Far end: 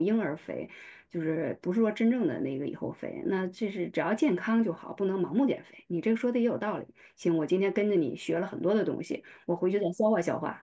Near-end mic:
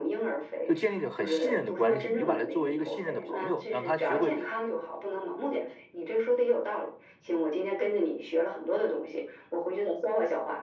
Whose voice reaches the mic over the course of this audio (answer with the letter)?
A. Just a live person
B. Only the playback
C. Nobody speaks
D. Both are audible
D